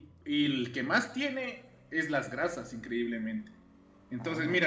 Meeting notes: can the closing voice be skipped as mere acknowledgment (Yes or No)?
Yes